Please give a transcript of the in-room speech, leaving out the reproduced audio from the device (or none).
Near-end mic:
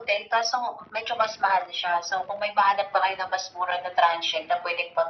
none